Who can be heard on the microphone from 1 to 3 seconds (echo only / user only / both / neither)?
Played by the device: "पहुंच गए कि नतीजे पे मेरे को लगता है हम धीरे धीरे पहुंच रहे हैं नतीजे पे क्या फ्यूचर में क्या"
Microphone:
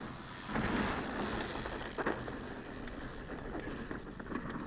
neither